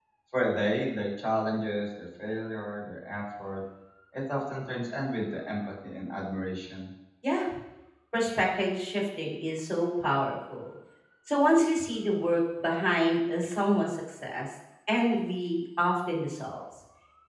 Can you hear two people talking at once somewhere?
No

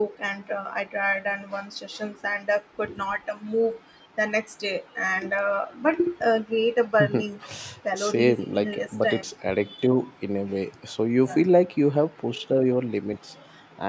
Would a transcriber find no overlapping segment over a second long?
No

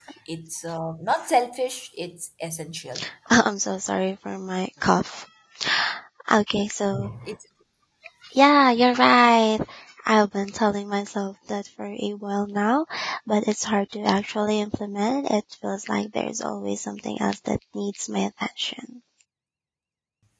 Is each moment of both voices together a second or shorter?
Yes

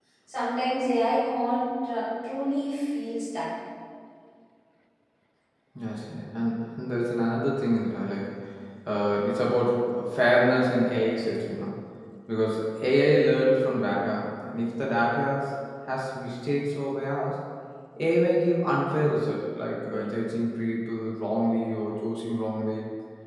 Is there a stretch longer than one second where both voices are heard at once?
No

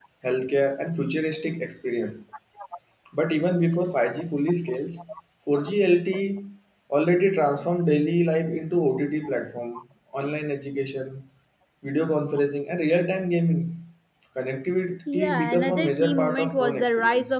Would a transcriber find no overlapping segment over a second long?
No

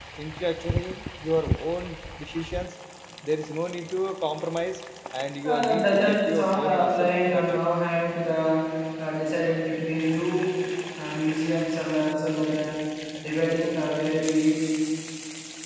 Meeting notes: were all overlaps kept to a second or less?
No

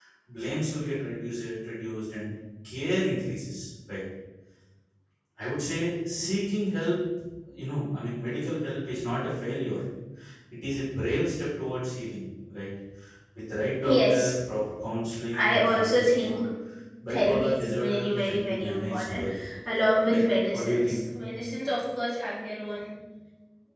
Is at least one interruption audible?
Yes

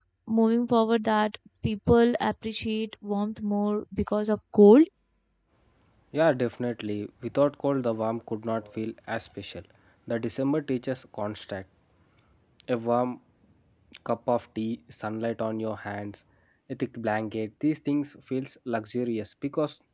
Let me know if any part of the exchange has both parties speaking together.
No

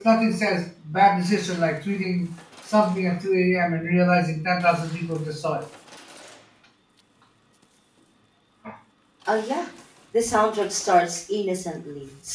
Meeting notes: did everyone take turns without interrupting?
Yes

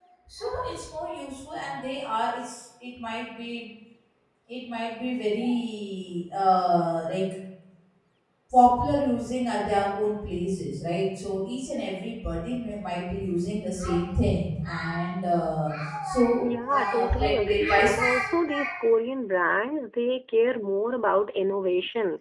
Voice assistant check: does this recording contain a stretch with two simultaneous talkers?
Yes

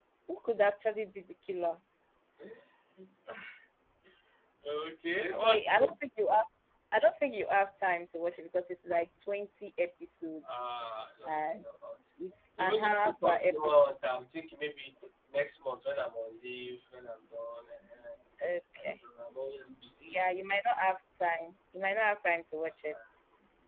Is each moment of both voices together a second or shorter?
No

